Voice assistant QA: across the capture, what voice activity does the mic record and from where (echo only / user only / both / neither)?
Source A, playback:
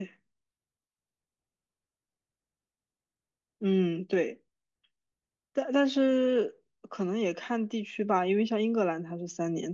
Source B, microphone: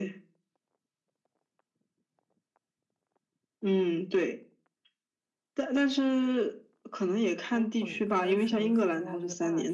both